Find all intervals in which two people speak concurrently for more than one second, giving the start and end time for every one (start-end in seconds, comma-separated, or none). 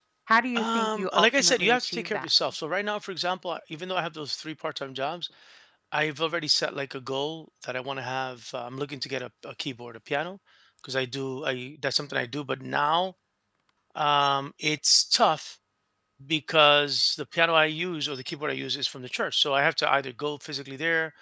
0.6-2.3